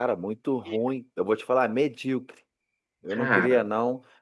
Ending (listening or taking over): listening